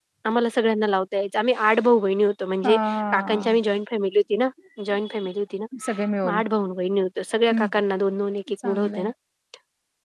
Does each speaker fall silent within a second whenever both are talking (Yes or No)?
Yes